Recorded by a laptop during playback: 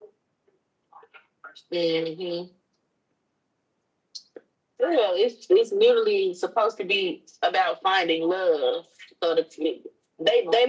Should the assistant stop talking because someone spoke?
No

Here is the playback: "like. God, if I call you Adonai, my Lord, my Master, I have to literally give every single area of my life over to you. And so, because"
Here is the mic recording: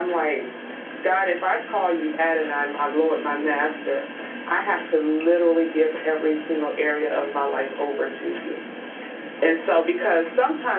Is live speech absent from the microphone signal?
Yes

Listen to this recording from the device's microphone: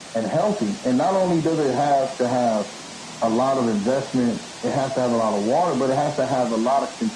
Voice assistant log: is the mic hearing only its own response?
Yes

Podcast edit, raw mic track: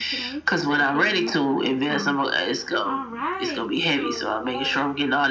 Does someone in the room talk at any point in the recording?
Yes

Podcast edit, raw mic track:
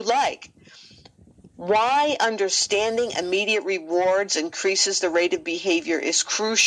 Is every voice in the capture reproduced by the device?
Yes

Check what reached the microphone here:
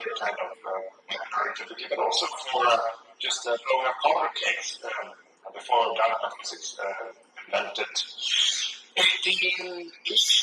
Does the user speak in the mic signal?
No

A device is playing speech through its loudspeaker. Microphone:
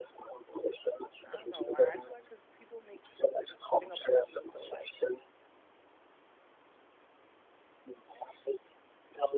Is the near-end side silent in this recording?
No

